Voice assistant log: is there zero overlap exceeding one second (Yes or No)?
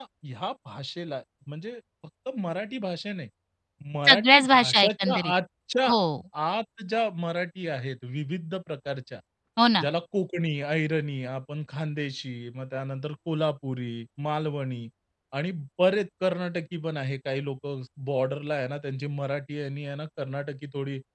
No